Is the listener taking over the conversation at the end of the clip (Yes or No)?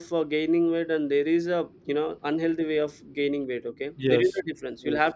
Yes